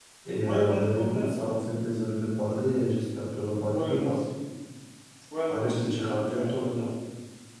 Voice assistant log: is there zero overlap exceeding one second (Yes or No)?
No